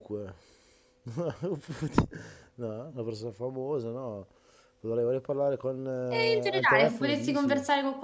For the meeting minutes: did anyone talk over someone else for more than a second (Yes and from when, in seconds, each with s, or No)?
Yes, from 6.1 s